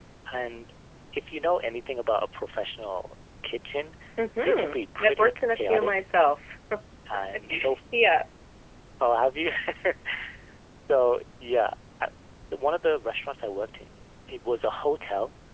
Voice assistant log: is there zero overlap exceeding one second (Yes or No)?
No